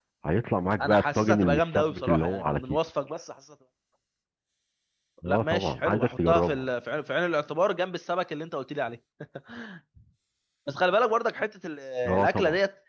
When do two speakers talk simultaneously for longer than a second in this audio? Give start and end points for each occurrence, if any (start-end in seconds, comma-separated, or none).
0.8-2.8, 5.3-6.6